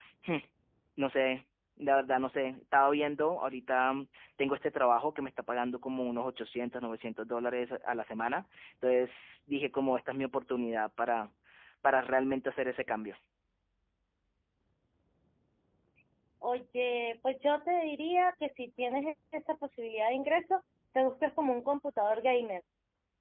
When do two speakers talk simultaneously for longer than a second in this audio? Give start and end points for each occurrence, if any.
none

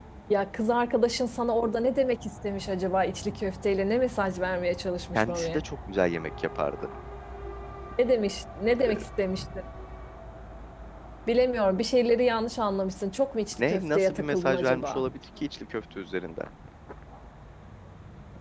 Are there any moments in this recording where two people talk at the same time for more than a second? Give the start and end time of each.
13.6-15.1

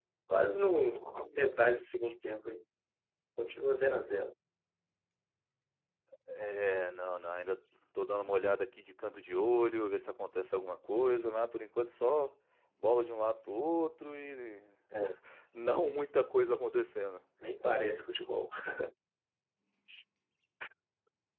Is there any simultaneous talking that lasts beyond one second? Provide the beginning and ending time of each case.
none

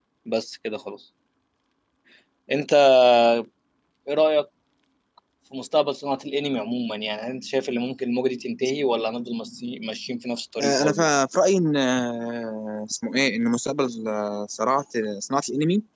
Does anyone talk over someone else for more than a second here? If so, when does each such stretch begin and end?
none

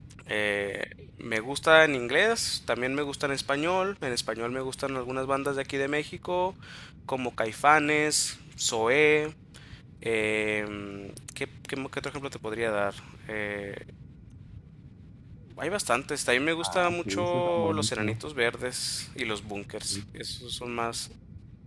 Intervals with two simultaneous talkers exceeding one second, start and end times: 16.6-18.2

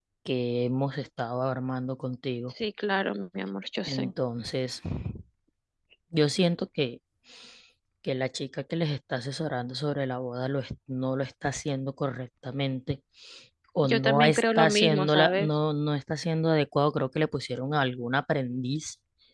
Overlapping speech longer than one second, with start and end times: 13.8-15.5

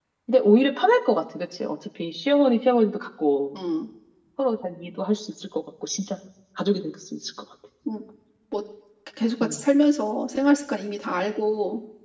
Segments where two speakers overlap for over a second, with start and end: none

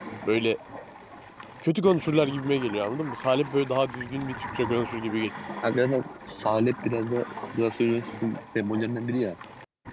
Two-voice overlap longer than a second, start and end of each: none

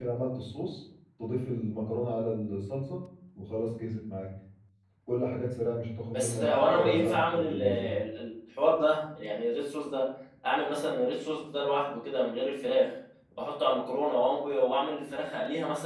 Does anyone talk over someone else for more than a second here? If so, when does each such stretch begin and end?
6.1-7.9

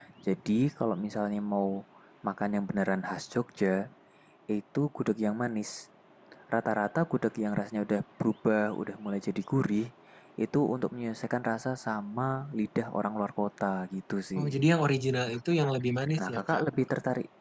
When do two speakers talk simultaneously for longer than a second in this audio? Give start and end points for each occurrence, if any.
none

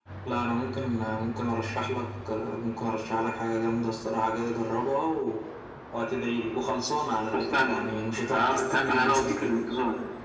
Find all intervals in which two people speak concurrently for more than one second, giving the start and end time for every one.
8.3-9.6

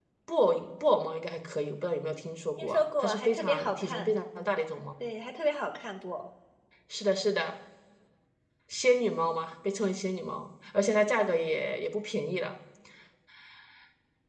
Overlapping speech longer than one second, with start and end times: 2.6-4.1

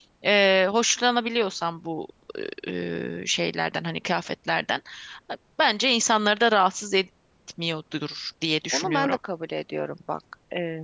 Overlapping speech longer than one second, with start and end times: none

